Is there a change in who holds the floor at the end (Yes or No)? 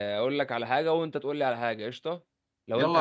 Yes